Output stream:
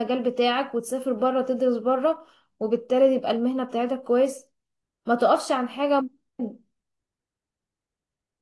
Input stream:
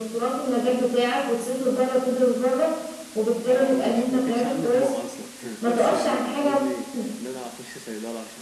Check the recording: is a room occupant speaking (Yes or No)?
Yes